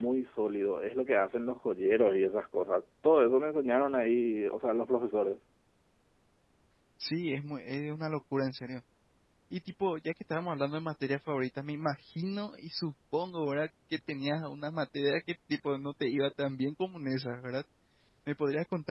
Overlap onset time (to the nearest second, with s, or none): none